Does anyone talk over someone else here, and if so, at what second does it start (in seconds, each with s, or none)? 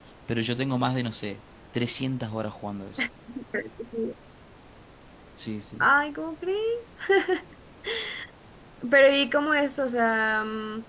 none